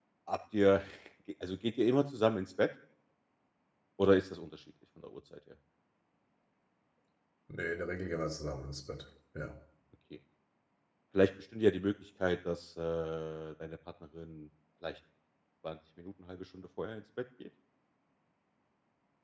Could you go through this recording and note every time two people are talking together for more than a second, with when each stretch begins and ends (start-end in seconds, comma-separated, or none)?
none